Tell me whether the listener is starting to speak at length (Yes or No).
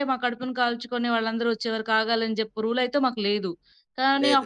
No